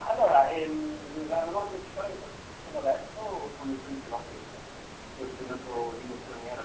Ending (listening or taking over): listening